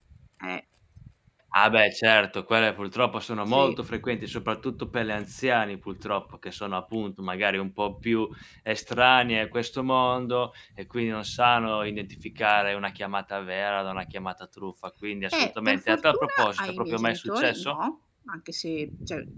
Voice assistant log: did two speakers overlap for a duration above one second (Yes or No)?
Yes